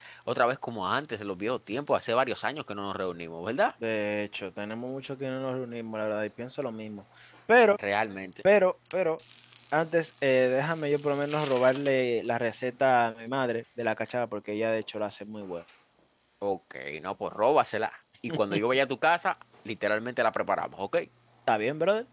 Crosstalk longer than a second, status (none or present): none